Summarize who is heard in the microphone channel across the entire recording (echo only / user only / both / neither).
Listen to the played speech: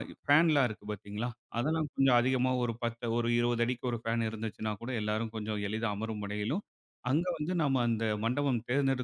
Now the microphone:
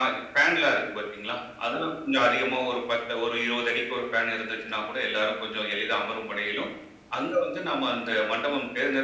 echo only